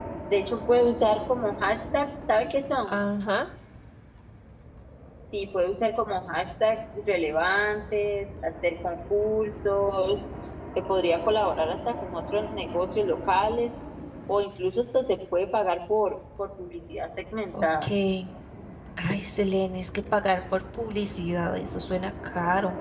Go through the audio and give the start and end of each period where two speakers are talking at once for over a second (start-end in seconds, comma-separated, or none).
none